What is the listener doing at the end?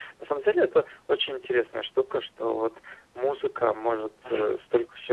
listening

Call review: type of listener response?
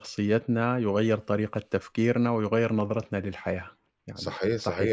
taking over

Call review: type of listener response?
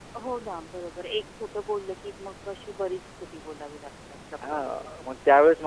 taking over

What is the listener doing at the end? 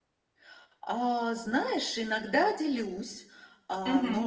listening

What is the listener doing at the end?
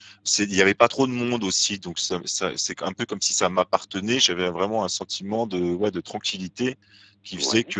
listening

